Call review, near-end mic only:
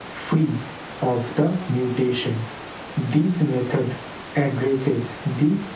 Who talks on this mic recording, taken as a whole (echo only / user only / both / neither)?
echo only